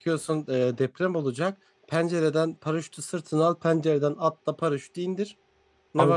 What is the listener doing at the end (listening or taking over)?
taking over